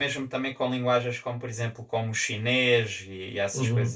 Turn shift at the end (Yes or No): Yes